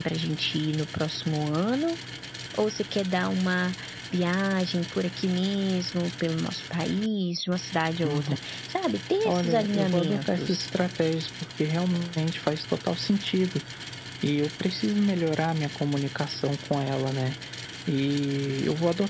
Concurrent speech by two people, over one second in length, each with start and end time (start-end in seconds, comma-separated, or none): 9.2-10.7